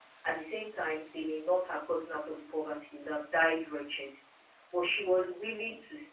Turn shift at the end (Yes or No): No